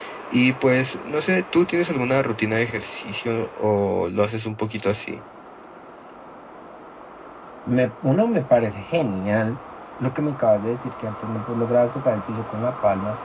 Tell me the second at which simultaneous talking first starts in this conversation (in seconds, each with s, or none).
none